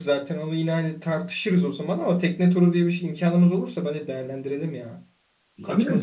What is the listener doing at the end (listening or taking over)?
taking over